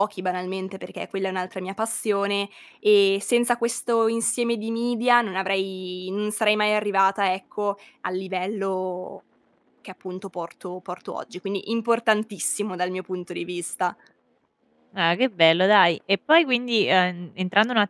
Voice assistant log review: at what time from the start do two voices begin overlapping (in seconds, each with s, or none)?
none